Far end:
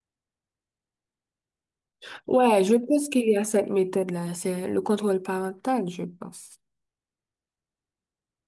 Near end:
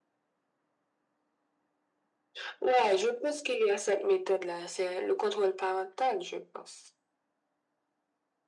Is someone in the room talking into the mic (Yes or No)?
No